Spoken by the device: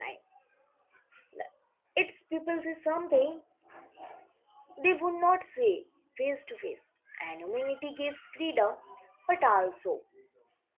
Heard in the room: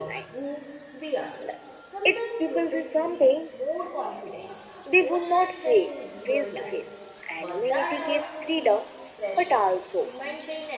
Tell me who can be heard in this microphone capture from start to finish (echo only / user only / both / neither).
both